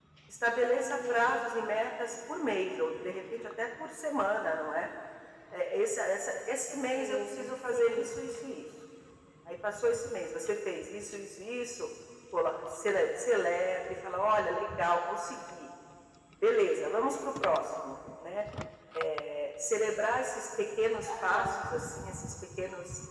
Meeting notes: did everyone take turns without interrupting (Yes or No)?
No